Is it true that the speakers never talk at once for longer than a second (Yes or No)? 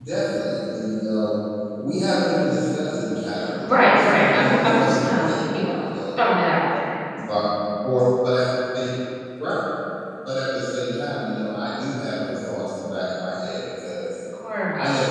No